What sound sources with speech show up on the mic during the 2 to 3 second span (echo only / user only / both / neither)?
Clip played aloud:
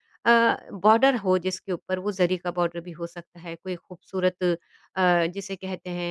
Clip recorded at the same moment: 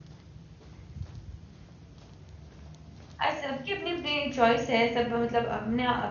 neither